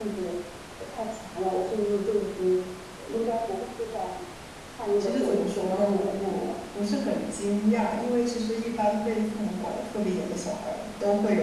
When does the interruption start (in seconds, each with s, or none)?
5.0 s